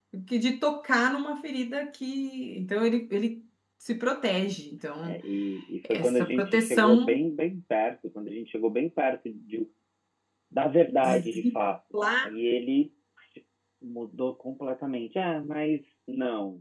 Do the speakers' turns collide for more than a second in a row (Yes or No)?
Yes